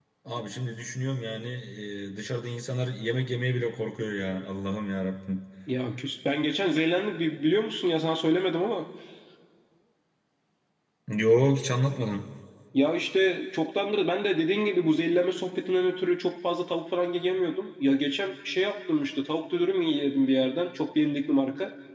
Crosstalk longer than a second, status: none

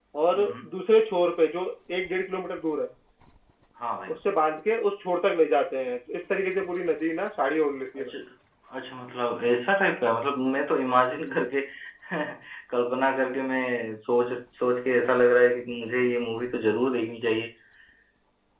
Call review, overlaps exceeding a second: none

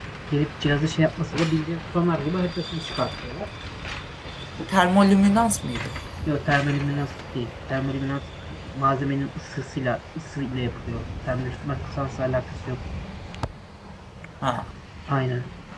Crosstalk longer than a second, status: none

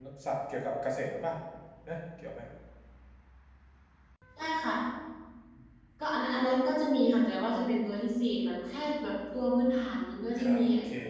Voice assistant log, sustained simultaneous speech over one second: none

